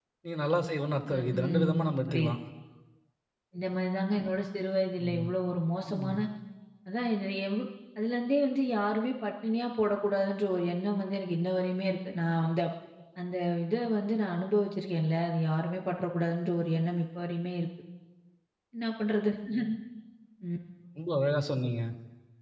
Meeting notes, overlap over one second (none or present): present